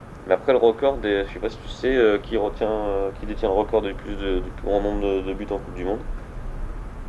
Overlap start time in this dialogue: none

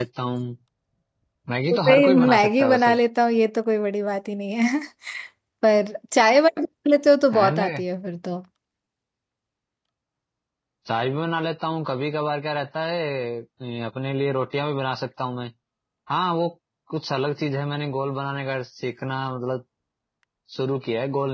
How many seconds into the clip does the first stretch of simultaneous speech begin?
1.7 s

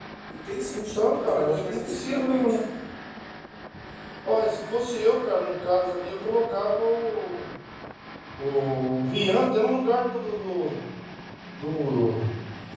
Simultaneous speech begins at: 0.7 s

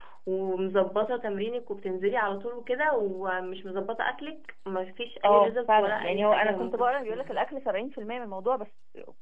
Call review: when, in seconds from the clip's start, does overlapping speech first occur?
5.2 s

